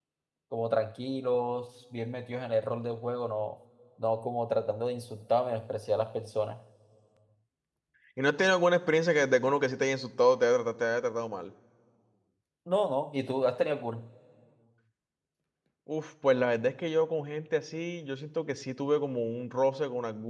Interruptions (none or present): none